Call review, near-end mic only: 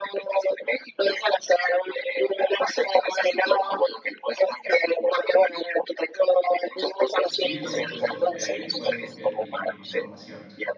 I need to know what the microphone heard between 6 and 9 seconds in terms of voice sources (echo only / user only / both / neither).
both